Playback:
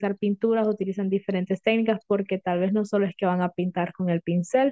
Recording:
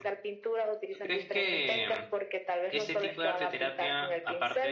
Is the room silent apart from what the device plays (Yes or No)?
No